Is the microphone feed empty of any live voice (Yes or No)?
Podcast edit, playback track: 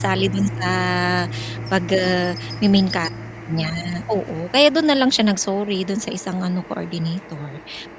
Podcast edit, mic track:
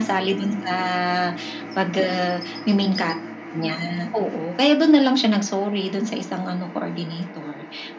Yes